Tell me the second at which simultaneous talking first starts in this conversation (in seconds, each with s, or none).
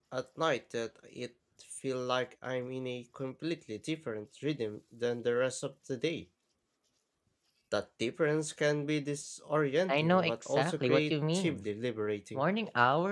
9.9 s